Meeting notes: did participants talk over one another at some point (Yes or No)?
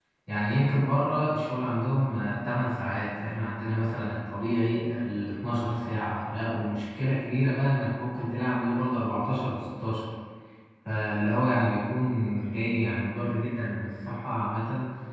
No